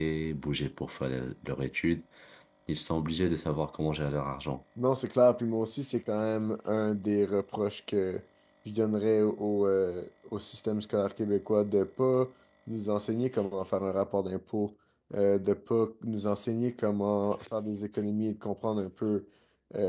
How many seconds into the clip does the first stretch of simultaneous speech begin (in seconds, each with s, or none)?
none